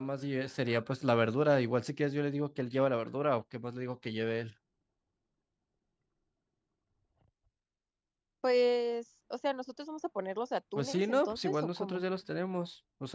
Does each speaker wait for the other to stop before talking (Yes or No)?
No